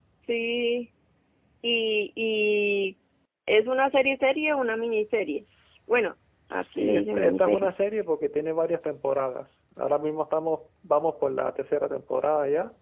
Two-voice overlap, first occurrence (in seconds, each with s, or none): 6.5 s